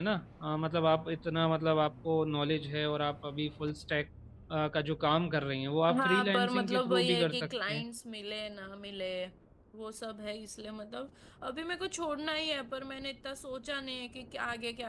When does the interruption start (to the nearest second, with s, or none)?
6 s